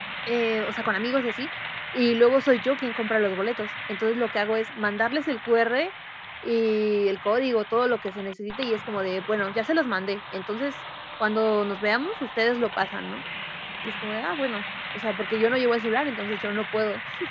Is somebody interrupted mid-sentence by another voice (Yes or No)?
No